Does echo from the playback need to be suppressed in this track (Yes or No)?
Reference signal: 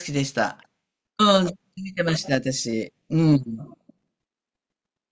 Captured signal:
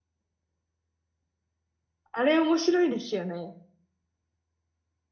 No